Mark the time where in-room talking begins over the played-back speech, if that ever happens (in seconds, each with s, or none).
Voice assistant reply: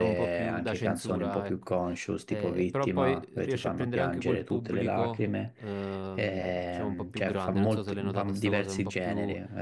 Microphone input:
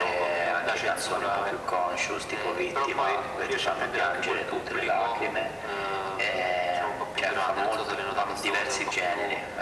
none